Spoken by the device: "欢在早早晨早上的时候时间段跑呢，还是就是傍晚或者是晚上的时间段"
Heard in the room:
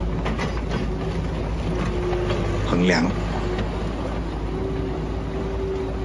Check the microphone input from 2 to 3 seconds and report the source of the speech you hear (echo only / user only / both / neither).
user only